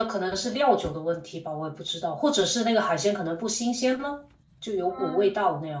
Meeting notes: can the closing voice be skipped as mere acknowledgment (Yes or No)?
No